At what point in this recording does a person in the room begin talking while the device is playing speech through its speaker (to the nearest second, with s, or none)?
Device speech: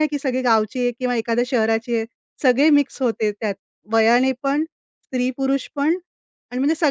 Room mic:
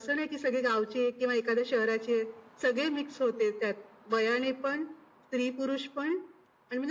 none